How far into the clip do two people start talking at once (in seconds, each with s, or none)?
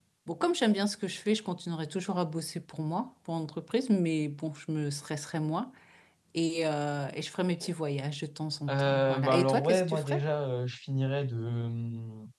8.7 s